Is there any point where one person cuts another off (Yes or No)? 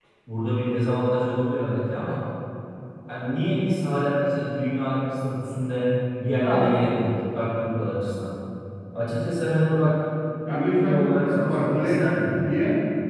Yes